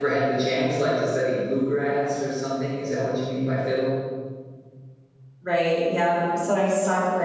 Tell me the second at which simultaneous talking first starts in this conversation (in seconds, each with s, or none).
none